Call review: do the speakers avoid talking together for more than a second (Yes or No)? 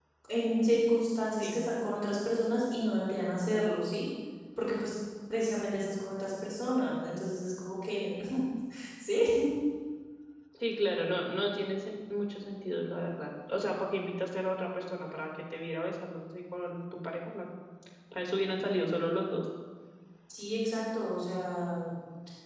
Yes